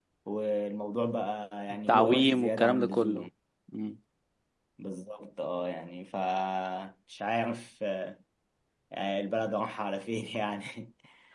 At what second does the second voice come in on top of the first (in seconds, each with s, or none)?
1.7 s